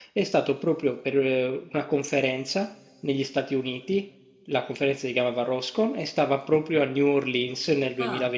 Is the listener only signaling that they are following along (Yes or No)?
Yes